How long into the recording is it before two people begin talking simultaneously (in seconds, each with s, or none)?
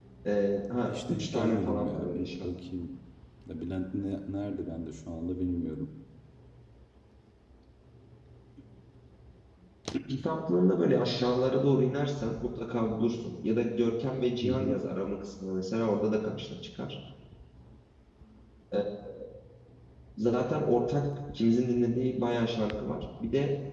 0.8 s